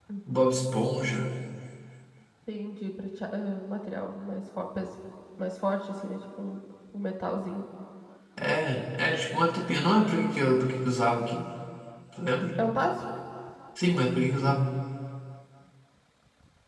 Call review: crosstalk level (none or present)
none